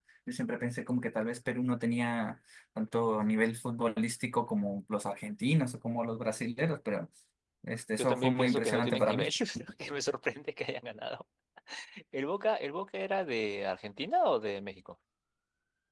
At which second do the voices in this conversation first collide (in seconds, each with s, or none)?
8.0 s